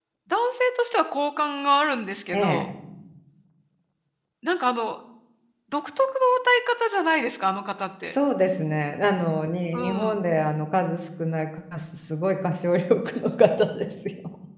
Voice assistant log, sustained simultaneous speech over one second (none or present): none